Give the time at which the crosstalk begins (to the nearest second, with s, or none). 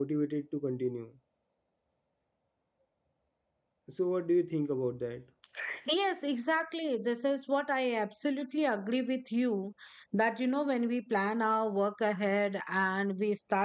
none